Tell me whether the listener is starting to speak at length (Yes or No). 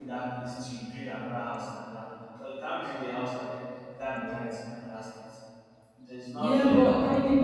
Yes